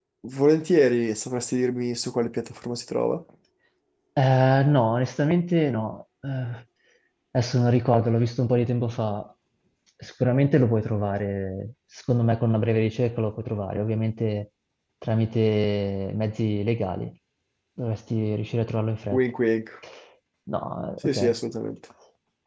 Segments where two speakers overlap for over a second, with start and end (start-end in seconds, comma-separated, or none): none